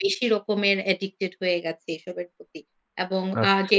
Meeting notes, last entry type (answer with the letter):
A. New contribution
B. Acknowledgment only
B